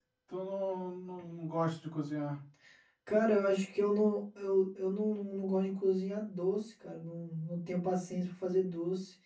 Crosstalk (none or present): none